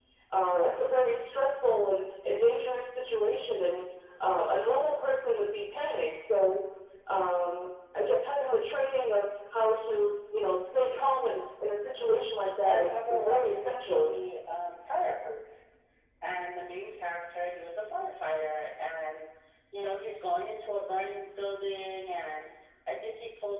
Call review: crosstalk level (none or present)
present